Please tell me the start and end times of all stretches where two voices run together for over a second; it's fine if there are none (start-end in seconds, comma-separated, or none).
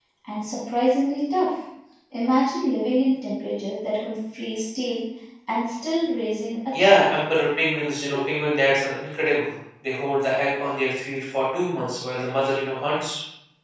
none